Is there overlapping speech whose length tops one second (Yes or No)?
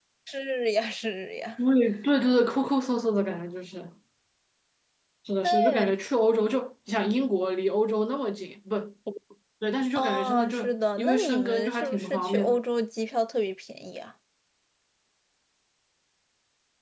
Yes